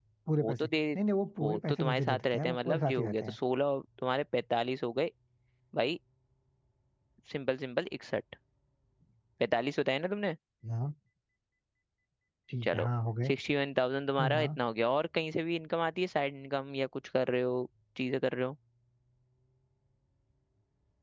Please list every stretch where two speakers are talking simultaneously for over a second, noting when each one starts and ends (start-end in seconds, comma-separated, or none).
1.4-3.4